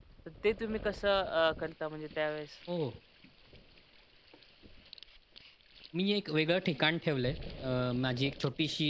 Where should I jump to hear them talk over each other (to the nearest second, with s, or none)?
none